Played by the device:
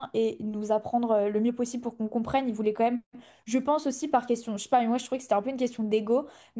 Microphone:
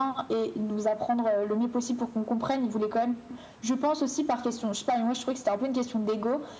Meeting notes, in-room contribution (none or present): none